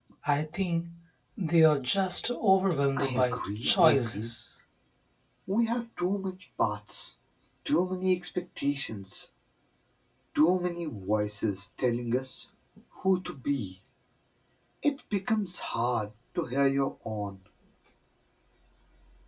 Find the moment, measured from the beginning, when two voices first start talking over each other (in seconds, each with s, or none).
3.0 s